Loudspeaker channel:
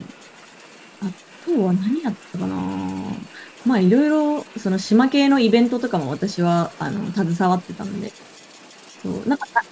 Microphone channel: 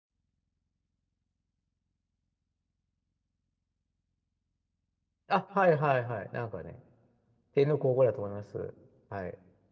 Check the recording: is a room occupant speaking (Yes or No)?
Yes